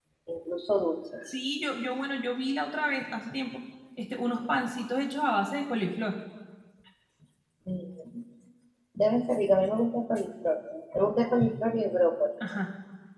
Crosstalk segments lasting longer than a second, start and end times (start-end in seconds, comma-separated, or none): none